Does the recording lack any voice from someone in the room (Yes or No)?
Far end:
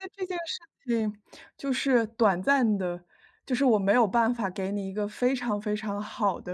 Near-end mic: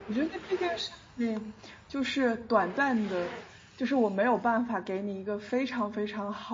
Yes